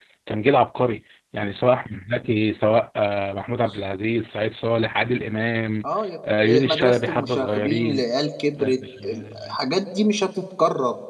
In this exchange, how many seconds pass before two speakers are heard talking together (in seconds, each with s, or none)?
6.4 s